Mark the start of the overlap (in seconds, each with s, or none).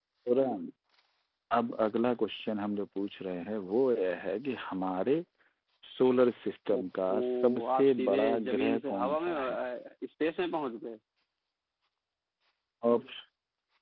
6.7 s